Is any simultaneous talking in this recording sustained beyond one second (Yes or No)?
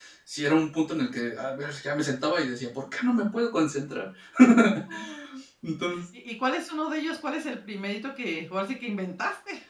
No